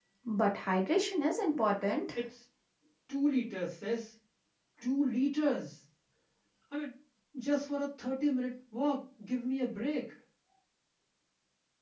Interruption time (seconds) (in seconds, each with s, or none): none